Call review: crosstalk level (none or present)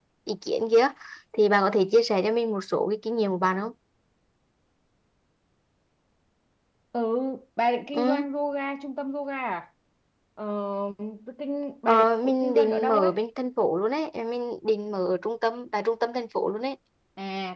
present